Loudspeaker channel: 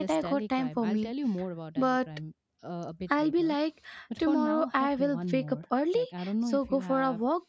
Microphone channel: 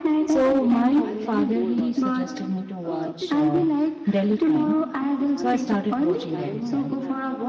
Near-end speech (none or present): present